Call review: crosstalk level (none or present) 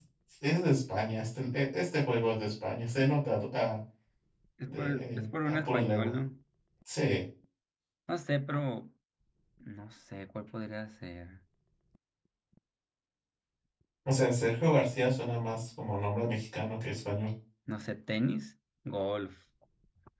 present